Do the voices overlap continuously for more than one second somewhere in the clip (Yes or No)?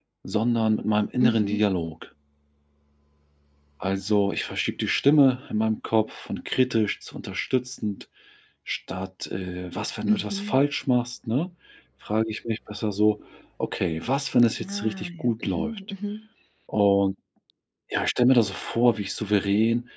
Yes